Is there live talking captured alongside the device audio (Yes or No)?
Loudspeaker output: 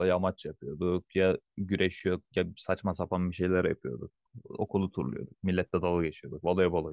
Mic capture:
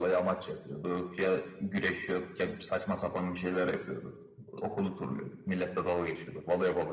No